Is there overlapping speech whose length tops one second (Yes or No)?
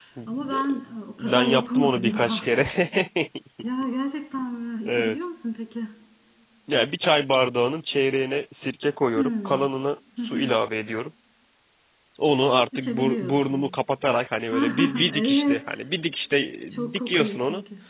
Yes